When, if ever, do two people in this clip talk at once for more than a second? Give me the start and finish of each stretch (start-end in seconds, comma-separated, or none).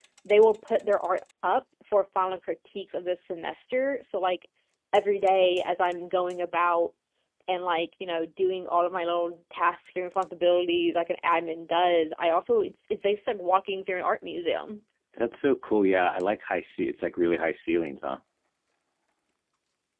none